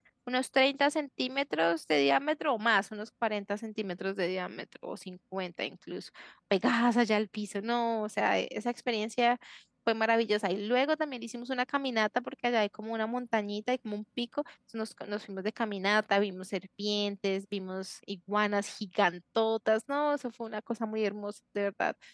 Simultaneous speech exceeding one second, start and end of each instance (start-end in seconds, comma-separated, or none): none